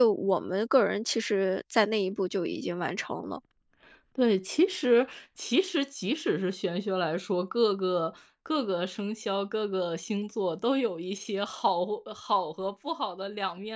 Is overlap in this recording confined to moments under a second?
Yes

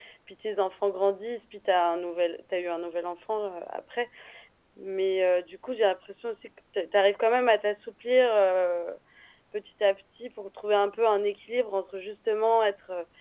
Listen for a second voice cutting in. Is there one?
No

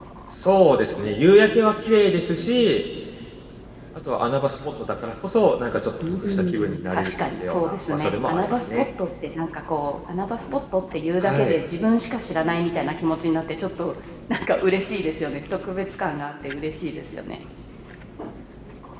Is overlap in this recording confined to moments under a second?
No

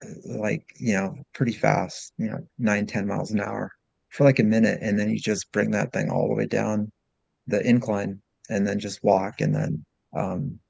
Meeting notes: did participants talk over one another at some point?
No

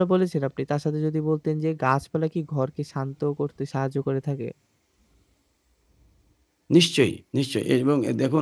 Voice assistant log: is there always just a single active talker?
Yes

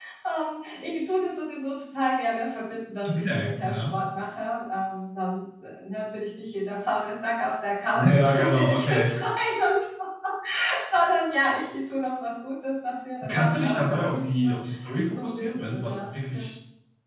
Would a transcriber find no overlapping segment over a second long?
No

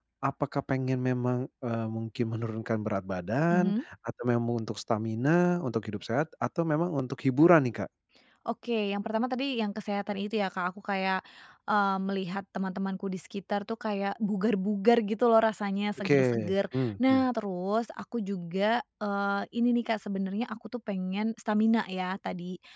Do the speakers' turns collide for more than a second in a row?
Yes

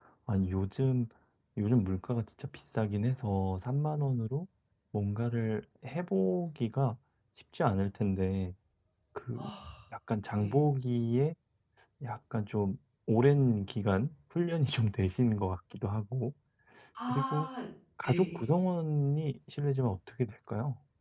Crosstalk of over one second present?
No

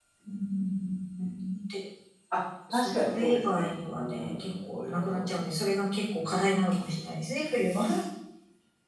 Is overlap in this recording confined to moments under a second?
No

